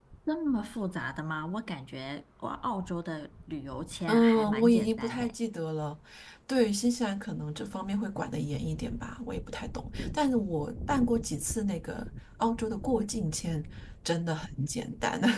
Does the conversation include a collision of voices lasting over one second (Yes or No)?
Yes